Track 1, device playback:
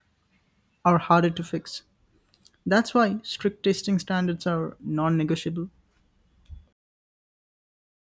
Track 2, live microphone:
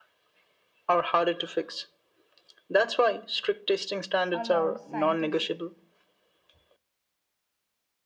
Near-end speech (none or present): present